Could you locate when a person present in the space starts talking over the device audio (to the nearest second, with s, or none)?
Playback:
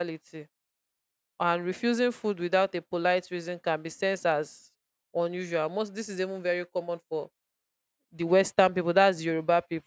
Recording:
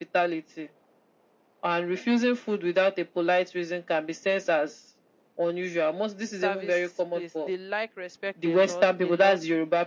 6 s